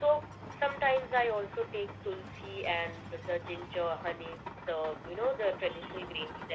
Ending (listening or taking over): taking over